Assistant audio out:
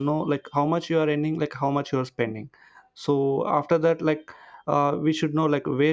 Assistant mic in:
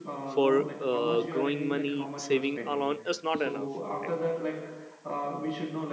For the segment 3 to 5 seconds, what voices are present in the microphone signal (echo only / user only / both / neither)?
both